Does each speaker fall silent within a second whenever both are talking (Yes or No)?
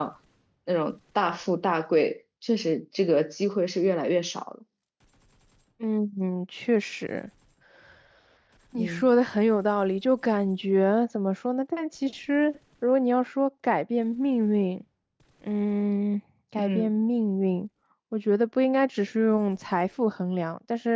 Yes